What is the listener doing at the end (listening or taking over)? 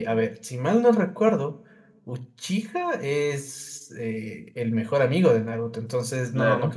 listening